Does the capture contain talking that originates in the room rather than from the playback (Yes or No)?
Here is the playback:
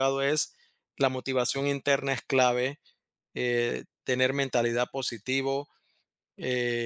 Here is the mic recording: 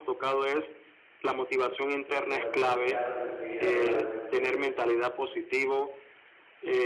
Yes